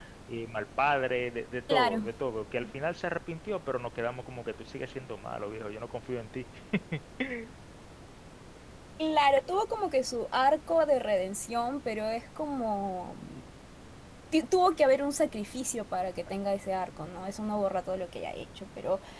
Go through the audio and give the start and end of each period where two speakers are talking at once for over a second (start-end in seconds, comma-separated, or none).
none